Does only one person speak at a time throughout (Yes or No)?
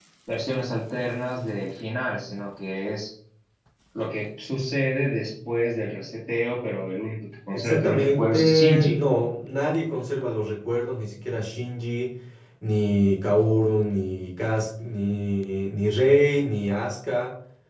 No